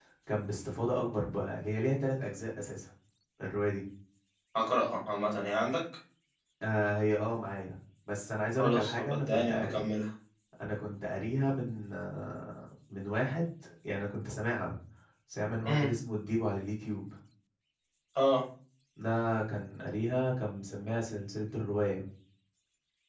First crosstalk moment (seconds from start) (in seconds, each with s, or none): 8.6 s